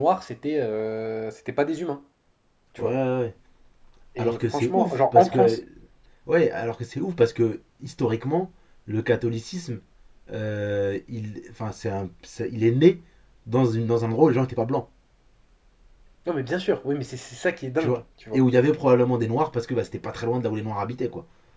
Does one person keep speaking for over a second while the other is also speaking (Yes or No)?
Yes